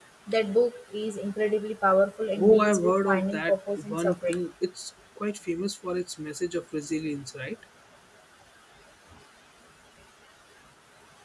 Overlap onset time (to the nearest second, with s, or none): 2 s